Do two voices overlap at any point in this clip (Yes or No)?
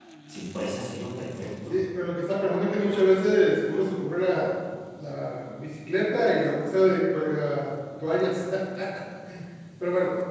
No